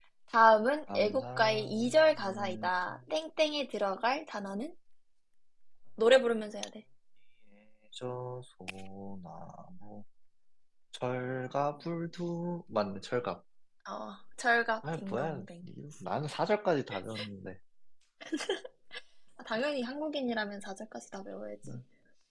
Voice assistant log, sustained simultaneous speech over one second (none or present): present